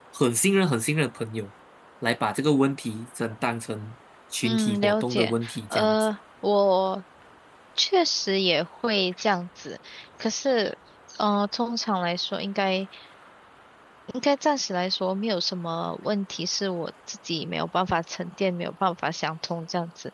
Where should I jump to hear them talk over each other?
4 s

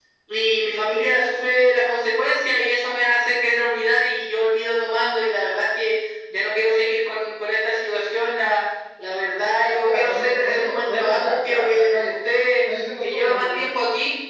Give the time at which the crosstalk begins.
10 s

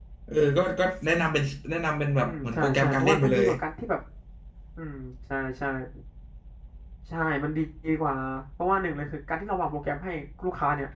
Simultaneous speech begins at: 2 s

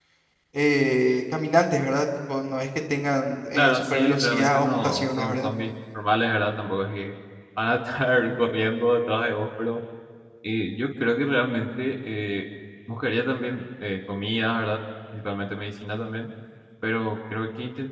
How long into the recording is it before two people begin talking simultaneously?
4 s

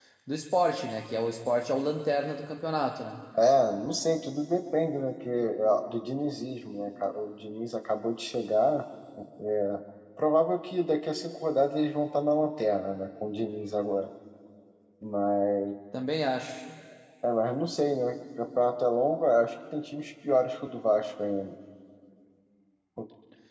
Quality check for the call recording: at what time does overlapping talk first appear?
none

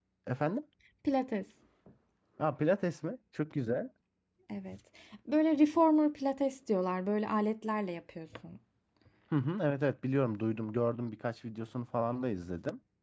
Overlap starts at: none

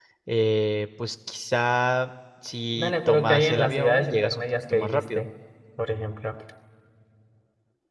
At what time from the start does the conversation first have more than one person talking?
3 s

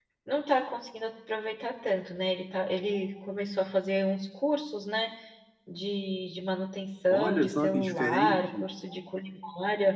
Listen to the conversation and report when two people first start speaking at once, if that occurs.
7 s

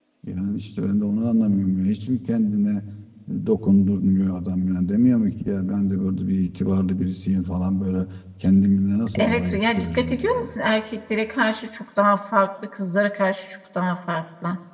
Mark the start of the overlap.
9 s

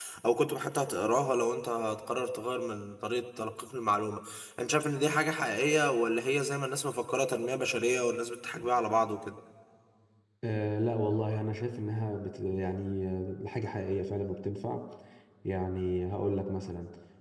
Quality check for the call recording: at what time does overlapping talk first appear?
none

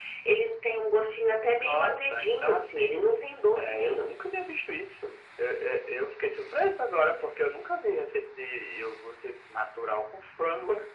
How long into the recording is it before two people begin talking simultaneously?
2 s

